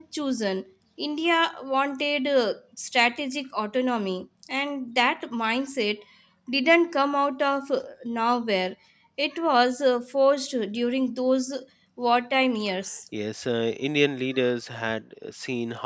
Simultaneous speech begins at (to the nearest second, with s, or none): none